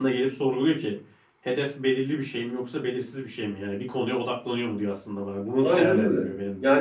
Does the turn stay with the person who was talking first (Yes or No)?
No